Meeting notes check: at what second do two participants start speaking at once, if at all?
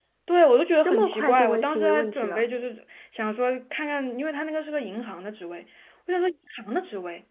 0.8 s

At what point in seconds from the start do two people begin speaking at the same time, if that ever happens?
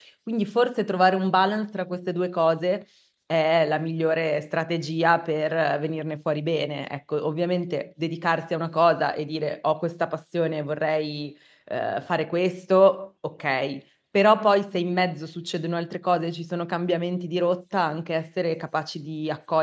none

